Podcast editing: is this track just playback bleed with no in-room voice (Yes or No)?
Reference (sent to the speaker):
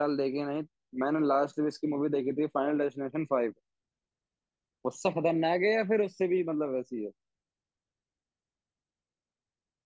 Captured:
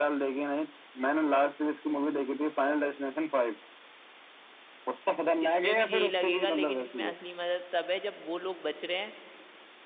No